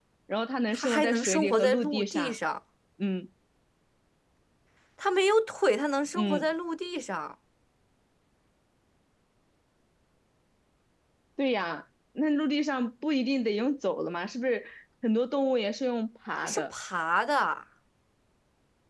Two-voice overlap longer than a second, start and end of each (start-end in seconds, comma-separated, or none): 0.7-2.4